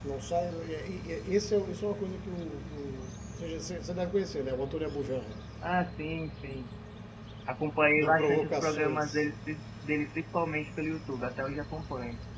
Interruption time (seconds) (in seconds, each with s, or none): 8.0 s